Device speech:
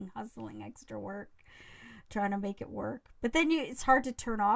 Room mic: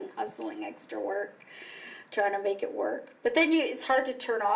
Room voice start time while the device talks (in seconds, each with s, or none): none